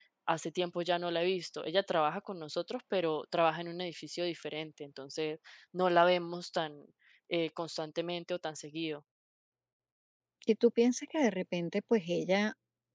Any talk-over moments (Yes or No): No